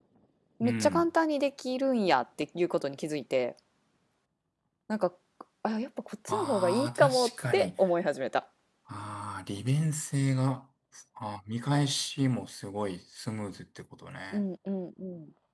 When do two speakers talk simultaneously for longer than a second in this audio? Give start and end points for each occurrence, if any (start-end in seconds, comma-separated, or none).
6.3-7.7